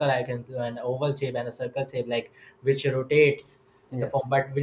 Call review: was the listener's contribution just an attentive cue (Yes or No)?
Yes